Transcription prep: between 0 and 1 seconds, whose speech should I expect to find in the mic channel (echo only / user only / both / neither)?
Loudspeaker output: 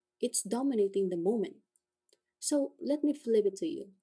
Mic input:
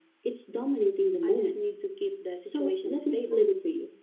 echo only